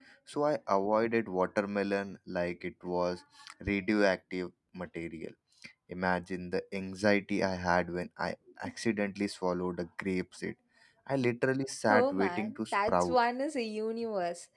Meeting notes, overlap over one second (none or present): present